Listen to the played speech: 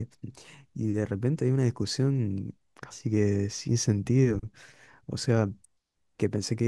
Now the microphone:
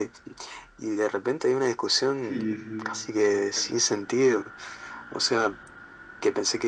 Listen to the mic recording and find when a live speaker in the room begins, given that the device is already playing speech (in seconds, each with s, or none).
2.2 s